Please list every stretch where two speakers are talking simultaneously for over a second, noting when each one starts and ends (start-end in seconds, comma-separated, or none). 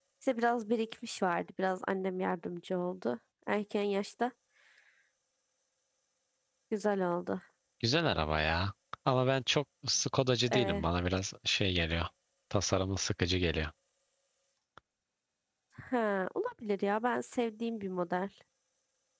none